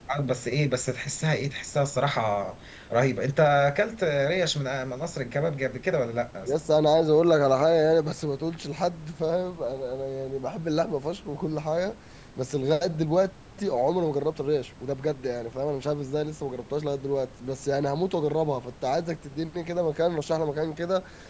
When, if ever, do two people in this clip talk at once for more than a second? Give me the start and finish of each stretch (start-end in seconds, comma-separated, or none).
none